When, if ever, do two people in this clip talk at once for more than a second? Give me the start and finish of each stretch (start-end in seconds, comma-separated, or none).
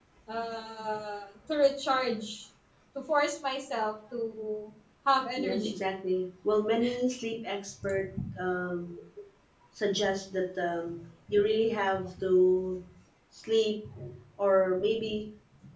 none